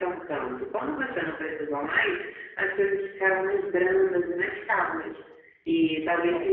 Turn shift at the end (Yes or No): No